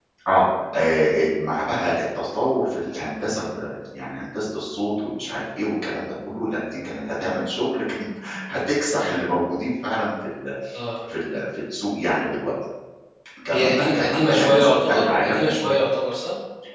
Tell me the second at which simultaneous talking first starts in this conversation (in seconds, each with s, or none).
13.5 s